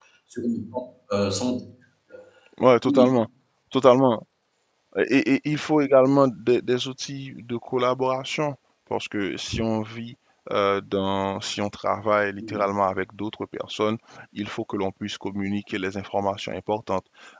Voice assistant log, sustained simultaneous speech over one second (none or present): none